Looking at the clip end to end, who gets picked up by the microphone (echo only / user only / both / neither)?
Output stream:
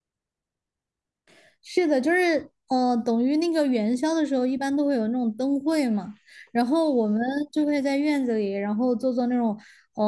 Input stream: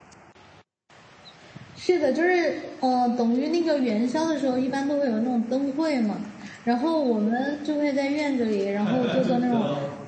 both